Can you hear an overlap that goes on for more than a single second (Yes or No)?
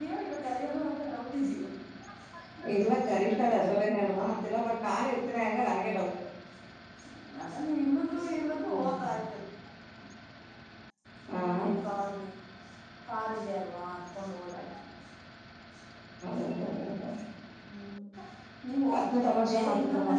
Yes